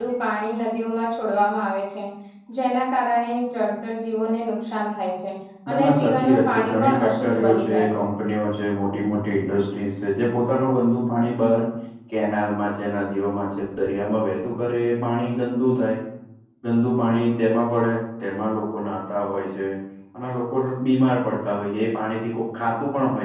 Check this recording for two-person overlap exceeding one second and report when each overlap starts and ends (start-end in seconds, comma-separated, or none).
5.7-8.1